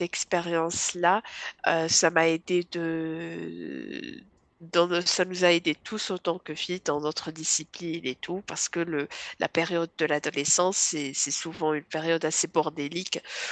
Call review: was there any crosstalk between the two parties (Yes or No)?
No